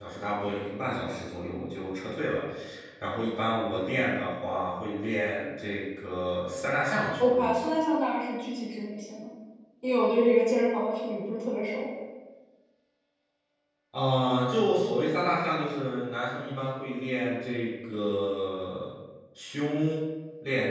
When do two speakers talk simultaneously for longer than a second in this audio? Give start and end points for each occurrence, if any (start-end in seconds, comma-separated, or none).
none